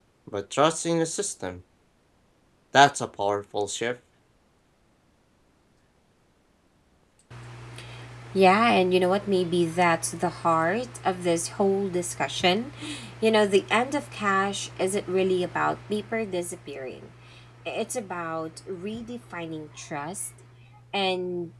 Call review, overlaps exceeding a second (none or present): none